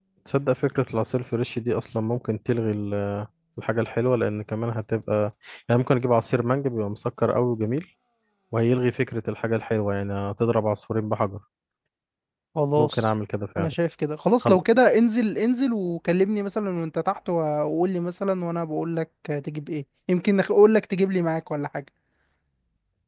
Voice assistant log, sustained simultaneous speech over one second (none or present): none